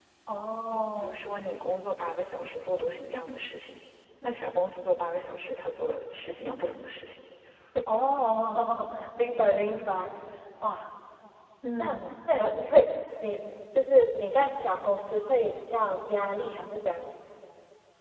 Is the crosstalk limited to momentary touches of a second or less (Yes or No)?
Yes